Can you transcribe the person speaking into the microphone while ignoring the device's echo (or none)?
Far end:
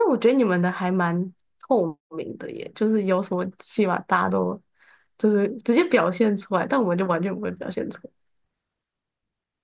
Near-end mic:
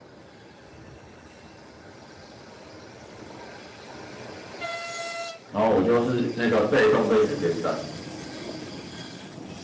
然后我就是那个被动被选边站。